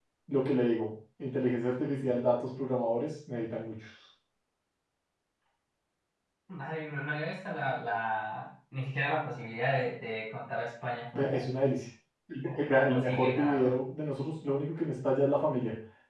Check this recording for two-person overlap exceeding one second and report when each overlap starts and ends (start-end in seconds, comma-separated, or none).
12.5-13.7